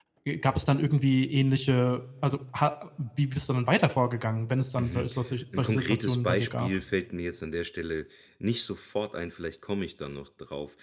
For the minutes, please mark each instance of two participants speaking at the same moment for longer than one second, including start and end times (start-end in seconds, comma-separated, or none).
5.5-6.8